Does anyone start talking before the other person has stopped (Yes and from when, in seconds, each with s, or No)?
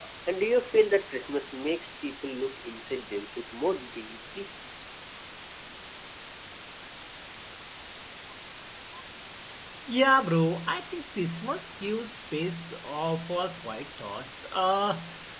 No